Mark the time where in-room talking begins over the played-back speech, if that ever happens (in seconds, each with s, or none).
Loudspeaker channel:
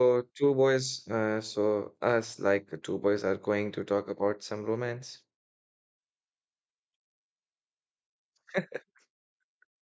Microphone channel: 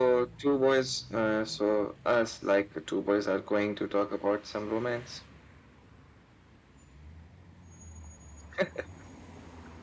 none